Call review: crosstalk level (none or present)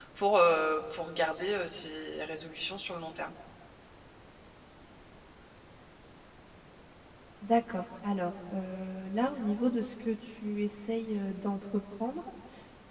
none